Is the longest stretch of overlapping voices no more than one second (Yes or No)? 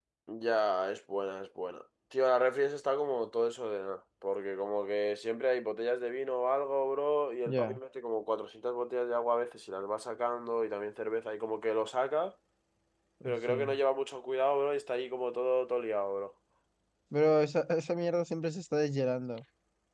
Yes